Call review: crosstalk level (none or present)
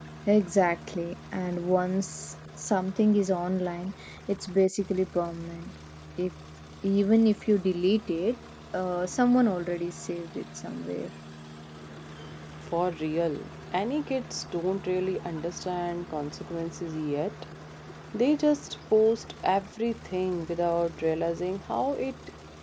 none